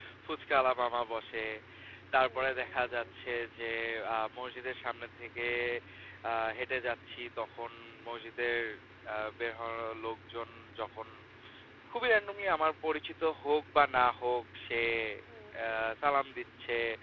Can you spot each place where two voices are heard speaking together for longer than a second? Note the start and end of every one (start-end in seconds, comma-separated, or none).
2.2-3.4